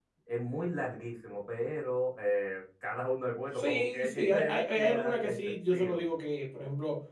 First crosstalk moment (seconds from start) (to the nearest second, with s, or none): 4 s